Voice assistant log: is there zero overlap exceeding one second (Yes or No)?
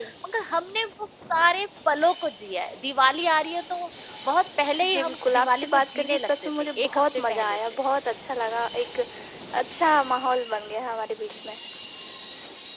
No